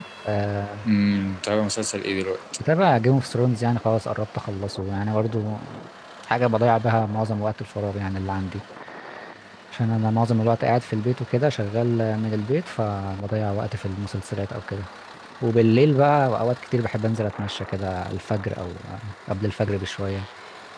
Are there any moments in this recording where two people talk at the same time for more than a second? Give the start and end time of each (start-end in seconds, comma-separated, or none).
none